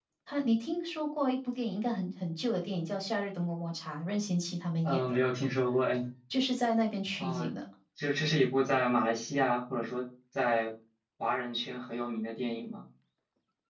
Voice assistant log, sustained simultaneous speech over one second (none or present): none